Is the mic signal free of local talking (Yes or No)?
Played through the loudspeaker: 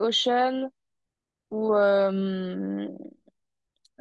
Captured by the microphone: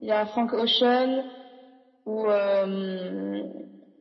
Yes